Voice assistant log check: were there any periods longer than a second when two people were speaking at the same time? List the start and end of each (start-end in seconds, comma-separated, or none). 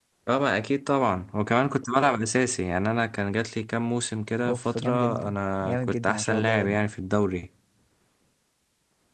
4.5-6.8